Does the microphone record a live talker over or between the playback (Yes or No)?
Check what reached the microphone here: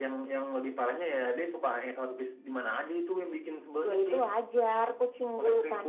No